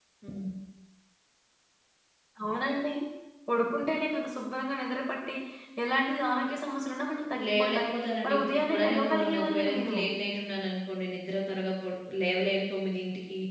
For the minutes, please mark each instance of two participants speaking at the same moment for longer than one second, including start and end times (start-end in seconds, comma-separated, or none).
7.5-9.9